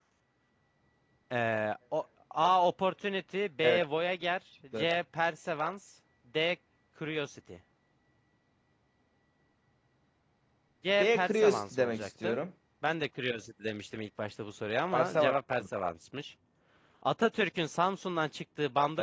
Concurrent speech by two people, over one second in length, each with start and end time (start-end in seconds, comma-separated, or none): 11.0-12.4